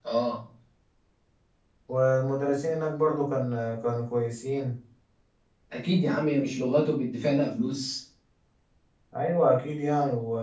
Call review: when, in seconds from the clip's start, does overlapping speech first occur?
none

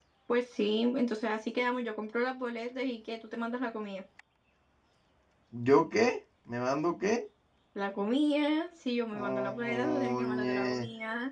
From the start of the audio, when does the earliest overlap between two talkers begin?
9.1 s

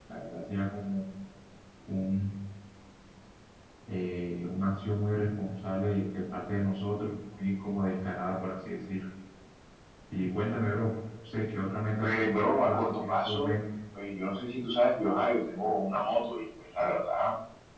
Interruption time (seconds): 12.0 s

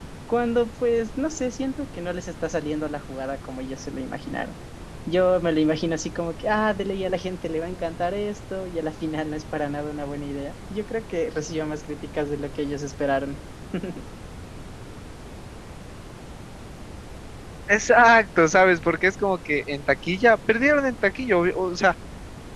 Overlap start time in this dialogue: none

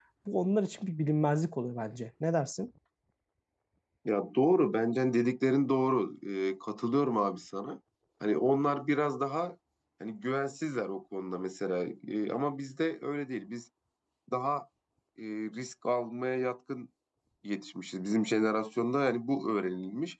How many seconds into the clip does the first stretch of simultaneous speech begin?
none

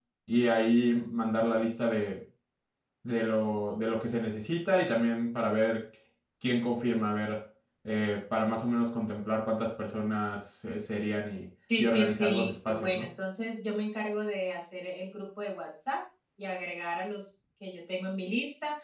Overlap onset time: 11.6 s

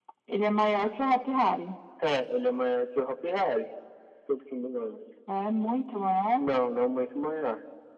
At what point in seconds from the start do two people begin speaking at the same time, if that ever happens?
none

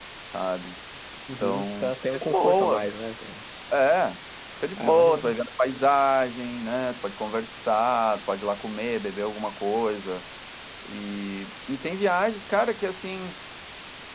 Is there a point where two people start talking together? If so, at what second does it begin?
1.4 s

